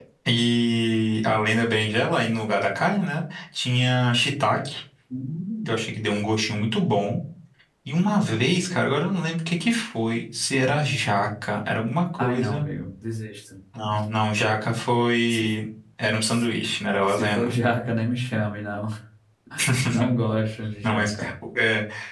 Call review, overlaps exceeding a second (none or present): none